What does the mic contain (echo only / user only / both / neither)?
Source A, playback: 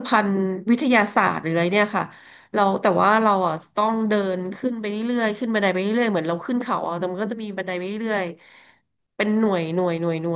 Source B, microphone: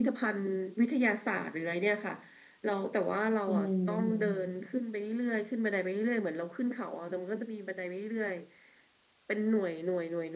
both